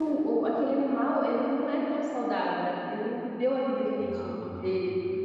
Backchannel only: Yes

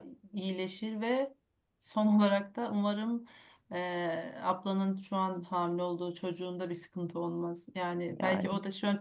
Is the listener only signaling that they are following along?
Yes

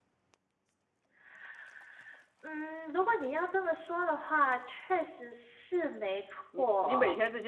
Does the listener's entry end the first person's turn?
Yes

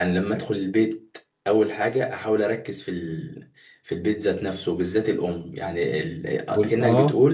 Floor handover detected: No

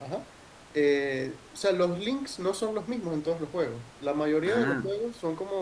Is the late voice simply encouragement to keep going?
Yes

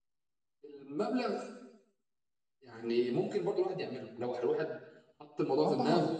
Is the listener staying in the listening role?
Yes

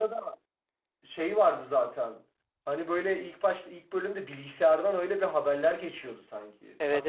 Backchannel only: No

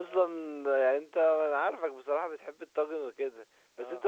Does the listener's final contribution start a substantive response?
No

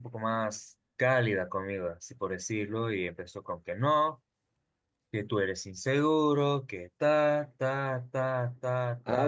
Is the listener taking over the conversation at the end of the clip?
Yes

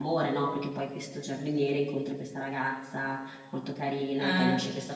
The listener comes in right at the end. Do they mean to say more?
No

